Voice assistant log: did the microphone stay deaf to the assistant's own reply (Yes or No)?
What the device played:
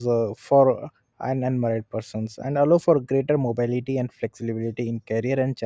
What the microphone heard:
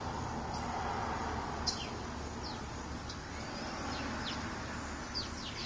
Yes